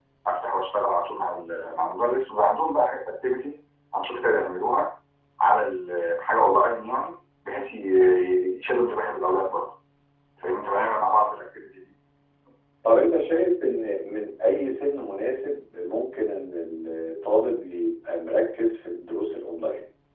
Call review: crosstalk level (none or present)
none